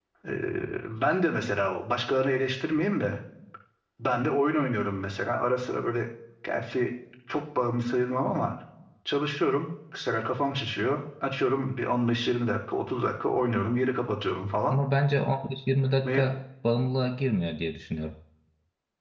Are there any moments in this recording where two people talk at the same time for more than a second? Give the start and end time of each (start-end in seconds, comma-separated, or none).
none